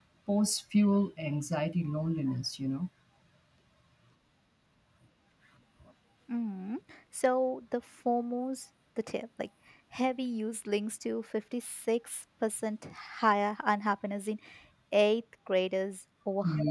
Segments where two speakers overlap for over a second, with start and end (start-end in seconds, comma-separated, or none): none